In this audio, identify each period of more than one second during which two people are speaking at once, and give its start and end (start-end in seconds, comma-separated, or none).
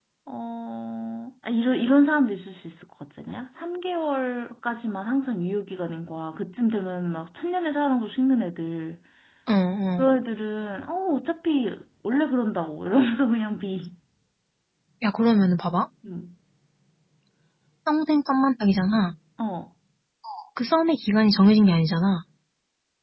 none